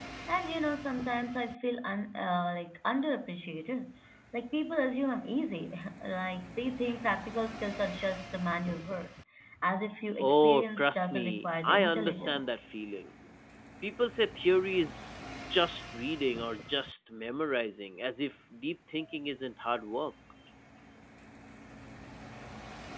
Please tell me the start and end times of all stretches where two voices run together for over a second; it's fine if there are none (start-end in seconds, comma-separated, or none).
10.2-12.5